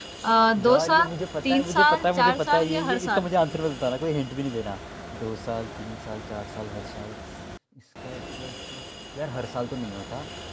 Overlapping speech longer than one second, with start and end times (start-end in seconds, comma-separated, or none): 1.5-3.3